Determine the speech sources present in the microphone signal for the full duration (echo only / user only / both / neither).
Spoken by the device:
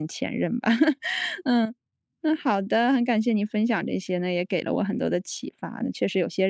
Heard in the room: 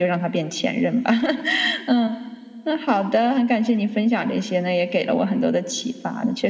echo only